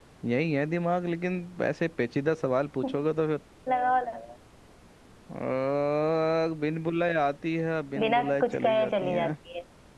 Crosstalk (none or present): present